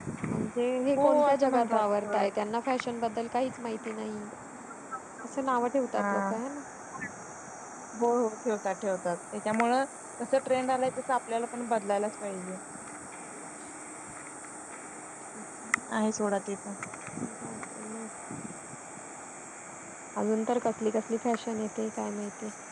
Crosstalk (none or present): present